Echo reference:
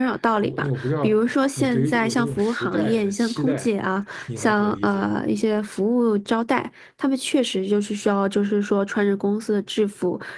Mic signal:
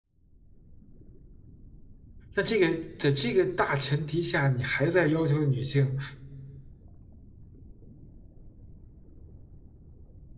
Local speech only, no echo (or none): 那这个在这个大前提下，你还在要求女性